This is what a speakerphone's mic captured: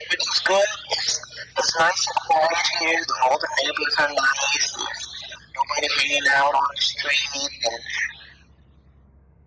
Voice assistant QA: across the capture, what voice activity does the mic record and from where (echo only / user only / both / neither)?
echo only